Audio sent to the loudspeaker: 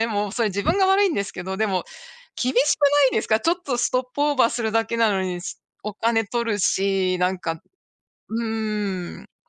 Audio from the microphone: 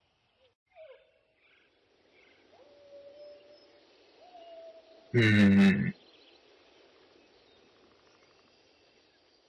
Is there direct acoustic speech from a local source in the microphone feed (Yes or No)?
Yes